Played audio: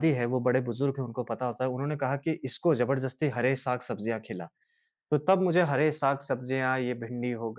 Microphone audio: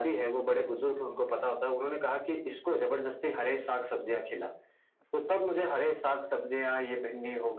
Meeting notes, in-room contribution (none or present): none